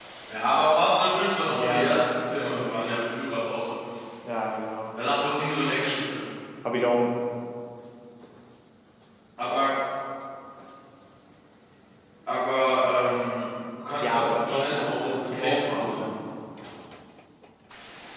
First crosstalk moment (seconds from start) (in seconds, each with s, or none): 1.4 s